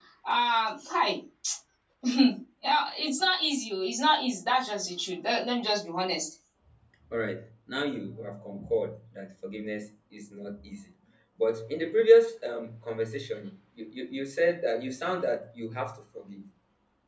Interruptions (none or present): none